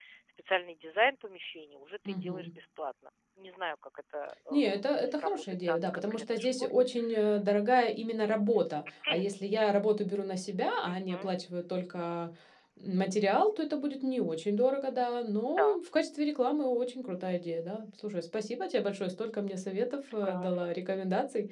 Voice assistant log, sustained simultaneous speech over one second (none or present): present